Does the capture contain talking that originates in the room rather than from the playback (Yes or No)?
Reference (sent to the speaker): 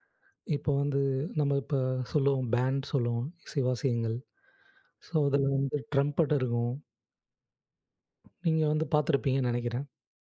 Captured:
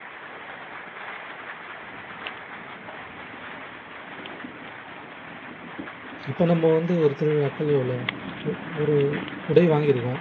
Yes